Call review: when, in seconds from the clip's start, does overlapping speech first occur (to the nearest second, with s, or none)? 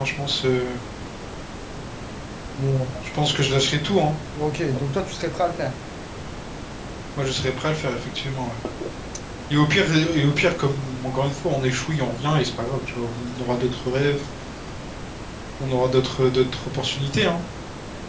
none